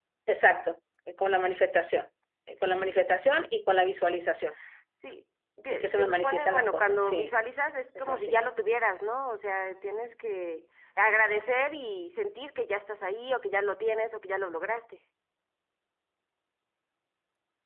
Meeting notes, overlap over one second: present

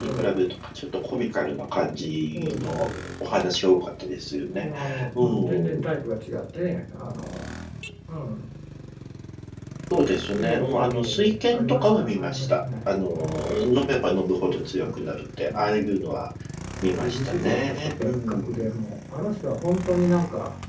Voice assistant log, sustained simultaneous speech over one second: present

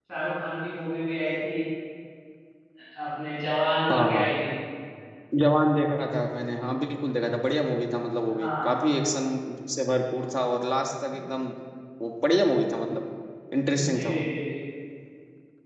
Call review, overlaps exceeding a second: none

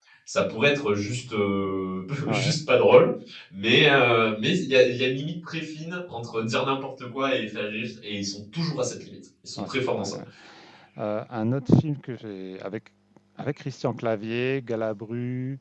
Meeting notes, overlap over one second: none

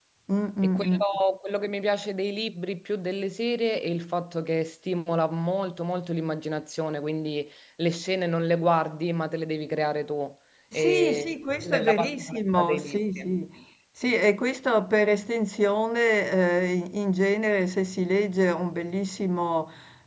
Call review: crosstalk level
present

